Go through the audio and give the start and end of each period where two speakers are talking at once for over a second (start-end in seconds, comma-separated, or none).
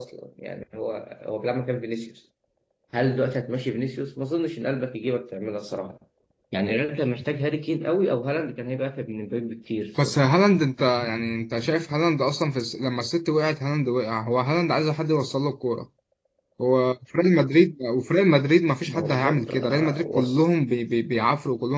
18.9-20.4